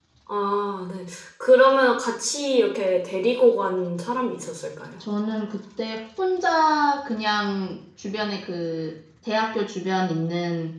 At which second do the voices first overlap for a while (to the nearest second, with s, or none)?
none